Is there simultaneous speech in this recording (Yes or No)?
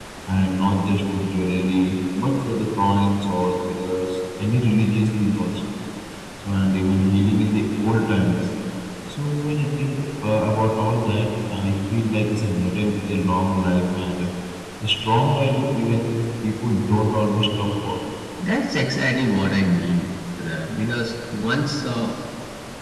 No